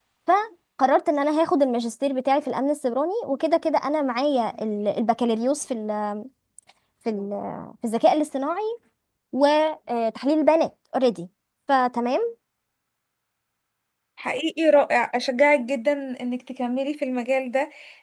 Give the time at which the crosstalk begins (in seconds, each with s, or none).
none